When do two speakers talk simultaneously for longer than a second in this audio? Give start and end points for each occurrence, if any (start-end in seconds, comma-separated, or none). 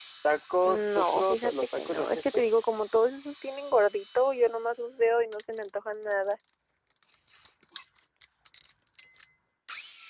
0.6-2.5